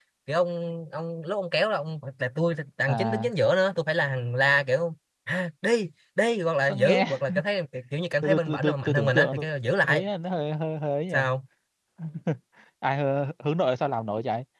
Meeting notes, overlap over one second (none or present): present